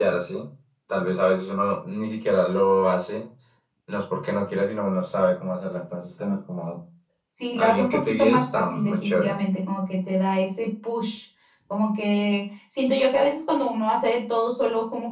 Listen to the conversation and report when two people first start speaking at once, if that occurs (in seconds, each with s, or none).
7.6 s